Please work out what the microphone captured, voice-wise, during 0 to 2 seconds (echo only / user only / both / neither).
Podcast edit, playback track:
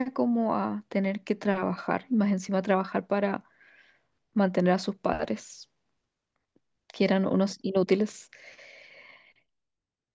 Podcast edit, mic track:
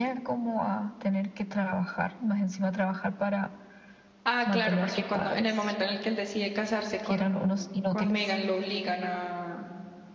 echo only